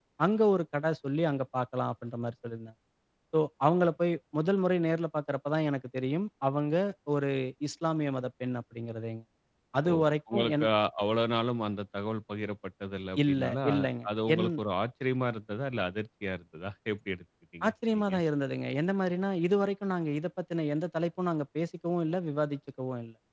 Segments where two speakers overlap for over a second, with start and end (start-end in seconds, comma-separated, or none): 13.3-14.5